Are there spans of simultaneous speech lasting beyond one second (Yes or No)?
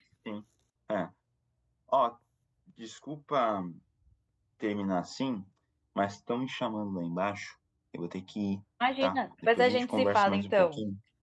Yes